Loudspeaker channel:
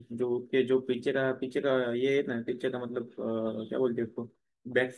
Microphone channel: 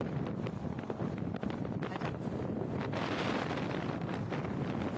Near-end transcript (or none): none